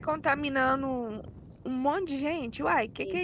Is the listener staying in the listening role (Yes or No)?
No